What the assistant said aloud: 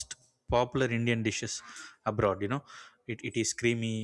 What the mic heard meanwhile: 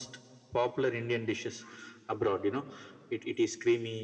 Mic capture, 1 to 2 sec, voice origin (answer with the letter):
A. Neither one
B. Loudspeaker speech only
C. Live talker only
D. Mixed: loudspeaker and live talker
B